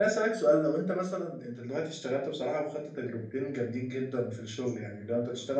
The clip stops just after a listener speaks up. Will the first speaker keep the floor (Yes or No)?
Yes